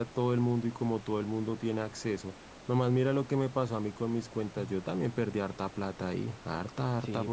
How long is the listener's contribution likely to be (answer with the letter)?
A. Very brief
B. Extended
A